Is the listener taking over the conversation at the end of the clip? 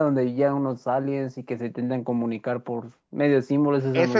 Yes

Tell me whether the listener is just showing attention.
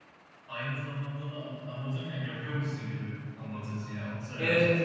No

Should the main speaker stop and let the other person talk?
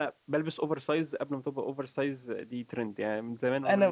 No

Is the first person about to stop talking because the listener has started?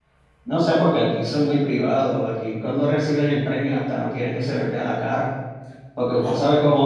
No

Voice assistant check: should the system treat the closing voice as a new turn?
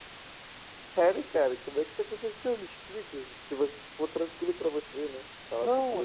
Yes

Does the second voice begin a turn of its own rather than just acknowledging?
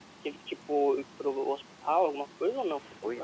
Yes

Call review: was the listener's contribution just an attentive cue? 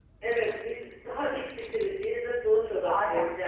Yes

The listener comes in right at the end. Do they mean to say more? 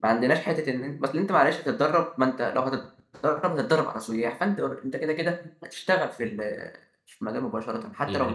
Yes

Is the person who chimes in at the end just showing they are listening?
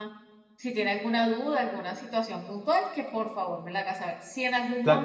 Yes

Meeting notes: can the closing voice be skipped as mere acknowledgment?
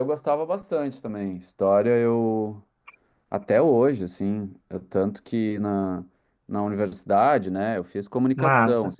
Yes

